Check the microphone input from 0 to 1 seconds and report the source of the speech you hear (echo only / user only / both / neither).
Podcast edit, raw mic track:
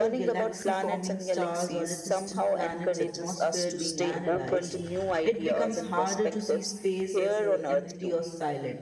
both